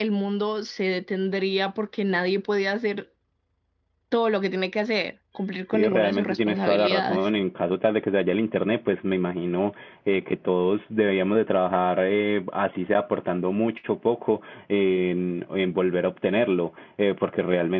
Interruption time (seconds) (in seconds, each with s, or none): 5.7 s